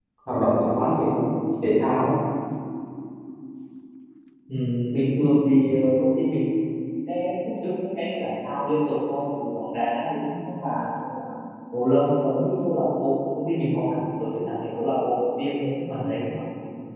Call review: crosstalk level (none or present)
none